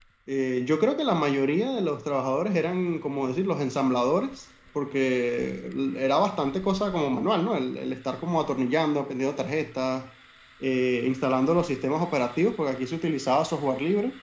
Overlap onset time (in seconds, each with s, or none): none